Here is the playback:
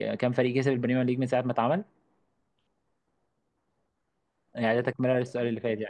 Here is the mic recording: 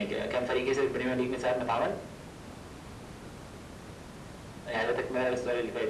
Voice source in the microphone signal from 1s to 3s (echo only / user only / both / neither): echo only